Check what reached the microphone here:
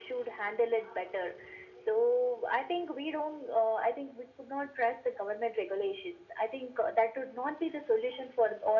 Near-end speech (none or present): none